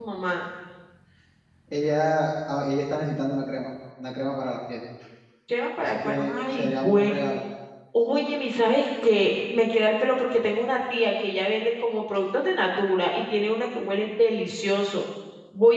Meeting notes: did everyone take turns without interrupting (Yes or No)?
No